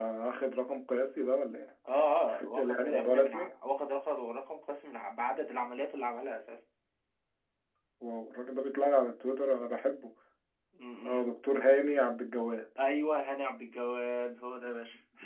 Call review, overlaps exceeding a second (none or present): present